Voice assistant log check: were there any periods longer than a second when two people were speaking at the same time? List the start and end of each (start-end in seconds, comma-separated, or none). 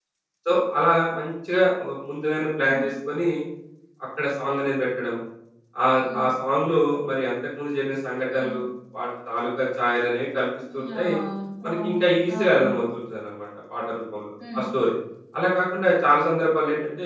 none